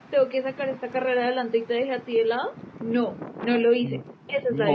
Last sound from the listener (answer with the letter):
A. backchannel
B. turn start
B